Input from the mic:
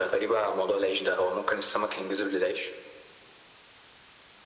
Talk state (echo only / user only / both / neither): echo only